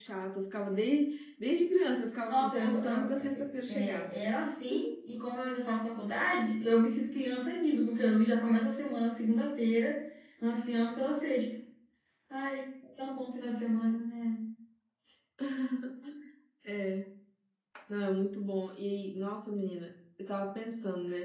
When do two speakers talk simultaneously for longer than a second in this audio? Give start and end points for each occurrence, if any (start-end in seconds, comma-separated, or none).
2.3-4.1